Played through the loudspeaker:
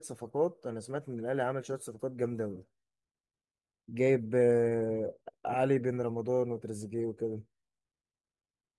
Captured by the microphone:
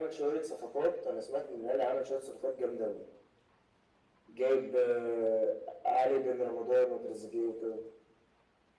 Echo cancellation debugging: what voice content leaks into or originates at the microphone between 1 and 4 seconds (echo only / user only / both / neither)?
echo only